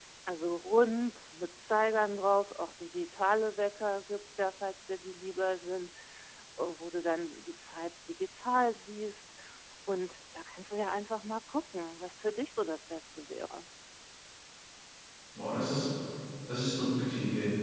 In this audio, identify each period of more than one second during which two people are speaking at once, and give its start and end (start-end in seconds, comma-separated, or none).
none